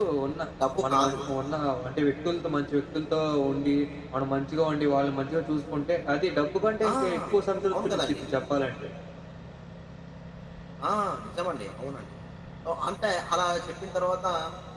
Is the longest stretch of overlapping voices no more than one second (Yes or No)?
Yes